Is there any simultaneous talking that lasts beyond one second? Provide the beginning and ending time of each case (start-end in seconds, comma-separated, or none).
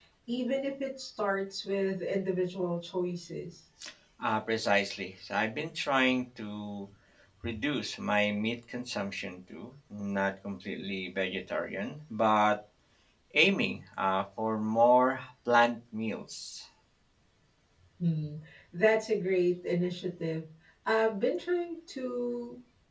none